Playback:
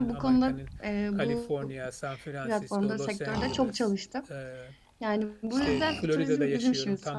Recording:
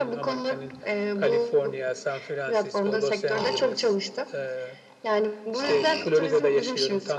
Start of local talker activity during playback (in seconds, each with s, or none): none